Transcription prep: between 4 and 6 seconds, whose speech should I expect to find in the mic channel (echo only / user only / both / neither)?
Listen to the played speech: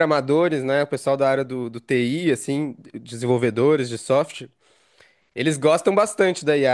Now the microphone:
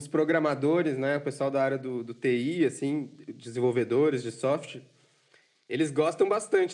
echo only